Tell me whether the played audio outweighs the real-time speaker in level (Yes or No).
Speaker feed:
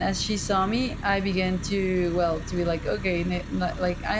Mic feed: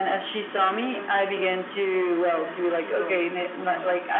Yes